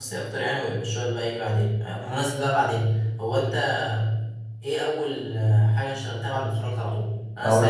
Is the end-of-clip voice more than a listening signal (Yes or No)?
No